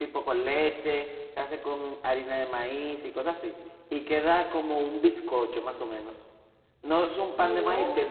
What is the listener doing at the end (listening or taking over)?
listening